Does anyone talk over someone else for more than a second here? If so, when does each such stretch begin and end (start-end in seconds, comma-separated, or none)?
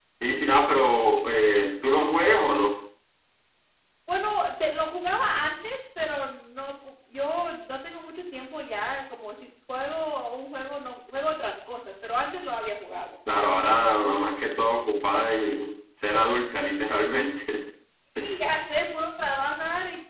none